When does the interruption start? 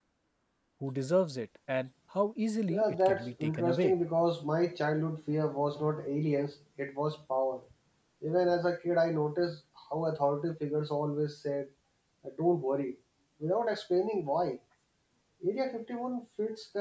2.7 s

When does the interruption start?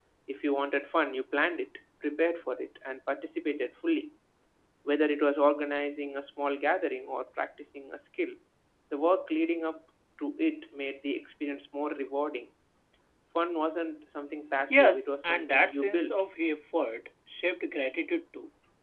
14.7 s

